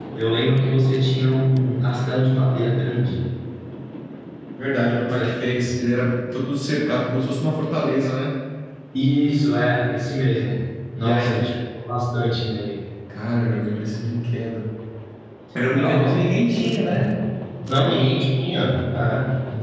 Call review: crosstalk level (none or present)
present